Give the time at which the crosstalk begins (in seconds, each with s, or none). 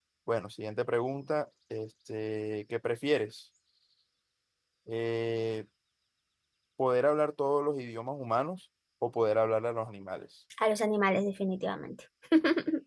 none